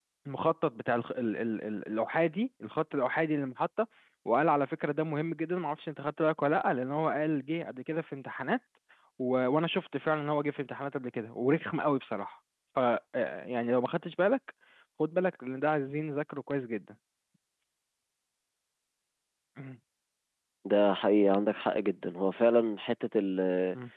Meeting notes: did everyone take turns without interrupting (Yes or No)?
Yes